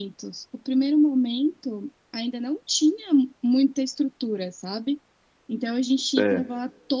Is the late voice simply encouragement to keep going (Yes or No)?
Yes